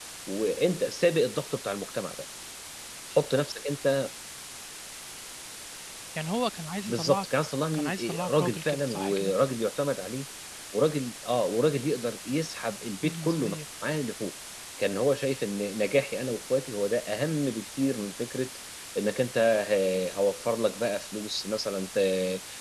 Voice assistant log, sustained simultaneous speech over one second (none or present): present